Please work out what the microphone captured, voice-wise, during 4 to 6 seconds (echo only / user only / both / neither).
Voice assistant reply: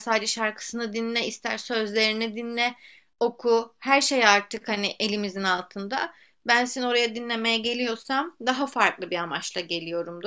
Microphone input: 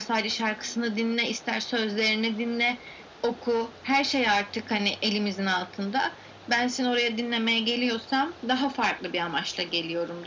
echo only